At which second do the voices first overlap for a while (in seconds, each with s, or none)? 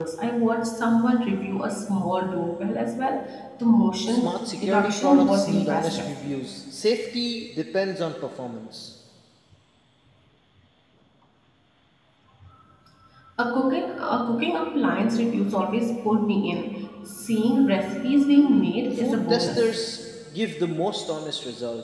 4.1 s